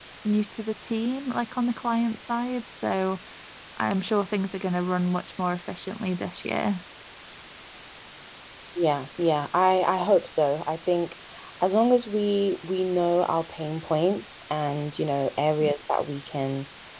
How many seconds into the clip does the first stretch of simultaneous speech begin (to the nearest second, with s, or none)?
none